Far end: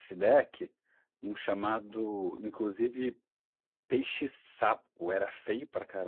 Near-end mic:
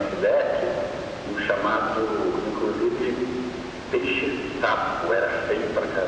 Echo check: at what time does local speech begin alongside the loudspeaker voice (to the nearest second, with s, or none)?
none